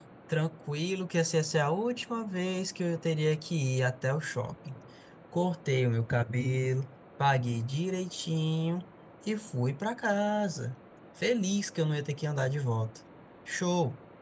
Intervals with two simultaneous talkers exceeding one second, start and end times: none

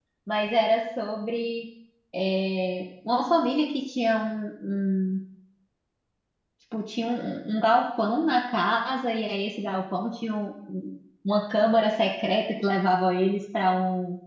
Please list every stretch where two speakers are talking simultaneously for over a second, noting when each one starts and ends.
none

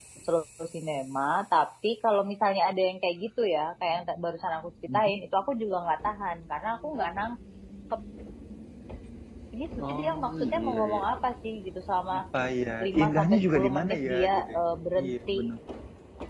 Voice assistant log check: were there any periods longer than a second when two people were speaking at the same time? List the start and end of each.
9.8-11.0, 12.8-14.6

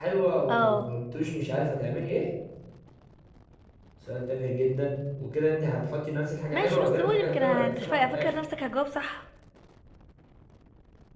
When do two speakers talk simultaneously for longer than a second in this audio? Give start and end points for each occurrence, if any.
6.5-8.3

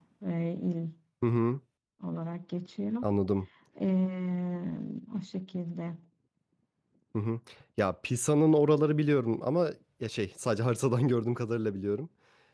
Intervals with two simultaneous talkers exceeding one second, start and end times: none

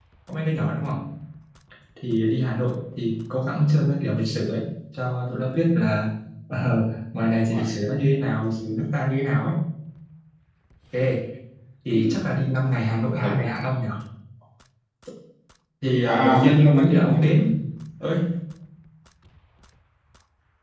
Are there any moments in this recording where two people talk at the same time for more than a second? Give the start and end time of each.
16.0-17.3

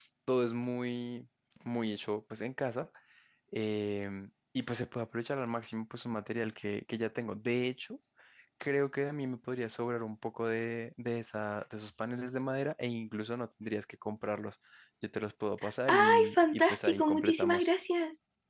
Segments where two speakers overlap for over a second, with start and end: 15.9-17.7

